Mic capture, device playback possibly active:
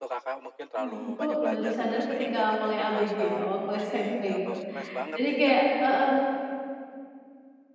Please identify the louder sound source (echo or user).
user